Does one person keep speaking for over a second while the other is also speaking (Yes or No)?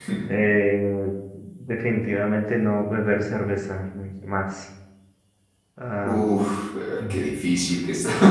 No